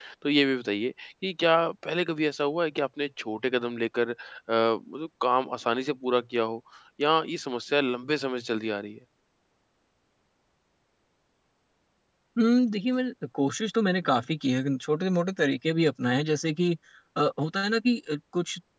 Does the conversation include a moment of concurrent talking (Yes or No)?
No